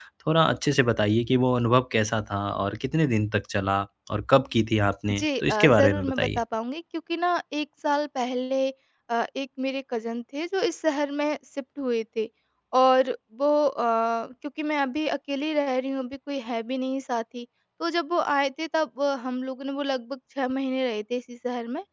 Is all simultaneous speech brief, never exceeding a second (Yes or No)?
No